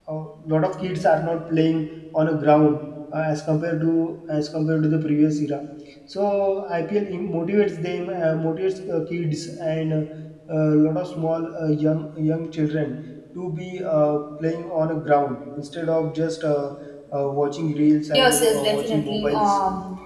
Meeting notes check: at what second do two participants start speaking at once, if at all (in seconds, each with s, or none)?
18.1 s